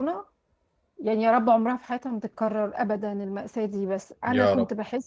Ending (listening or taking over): listening